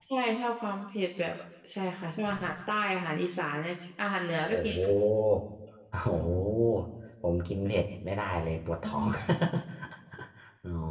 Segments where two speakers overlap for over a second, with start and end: none

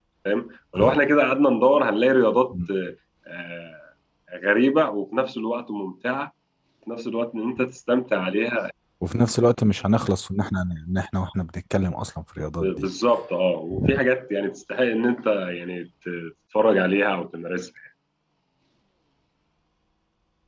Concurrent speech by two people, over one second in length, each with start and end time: none

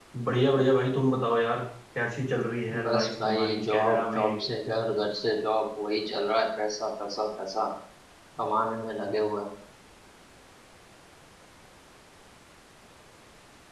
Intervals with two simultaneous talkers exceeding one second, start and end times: 2.8-4.4

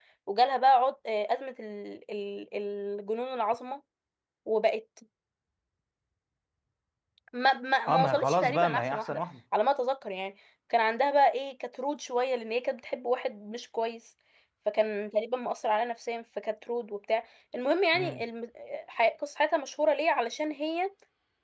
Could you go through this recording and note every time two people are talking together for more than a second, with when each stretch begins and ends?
7.9-9.2

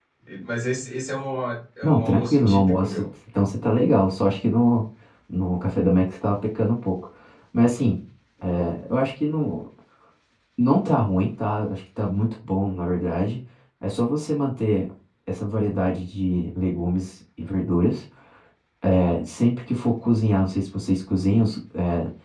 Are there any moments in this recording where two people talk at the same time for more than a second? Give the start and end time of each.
1.8-3.0

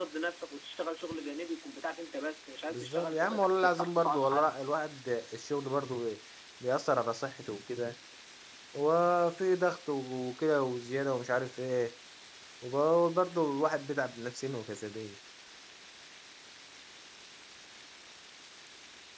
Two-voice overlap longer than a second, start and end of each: 2.7-4.5

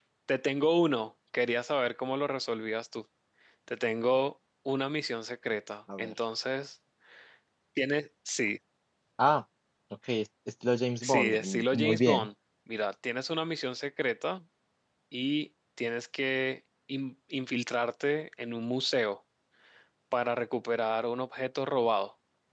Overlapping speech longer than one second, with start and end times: 11.0-12.3

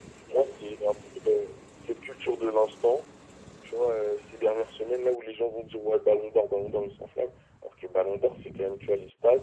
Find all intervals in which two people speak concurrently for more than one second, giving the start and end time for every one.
none

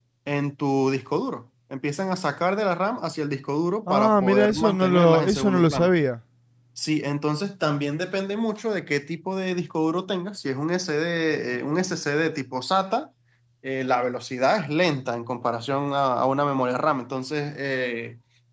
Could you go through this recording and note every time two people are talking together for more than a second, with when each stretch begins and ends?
3.9-5.9

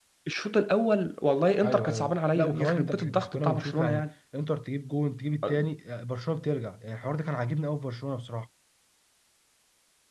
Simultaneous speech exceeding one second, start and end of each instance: 1.6-4.0

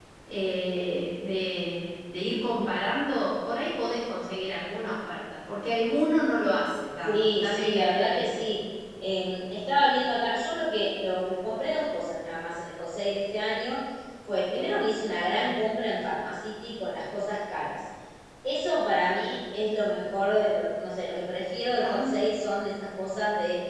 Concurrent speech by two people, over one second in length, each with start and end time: 7.0-8.5

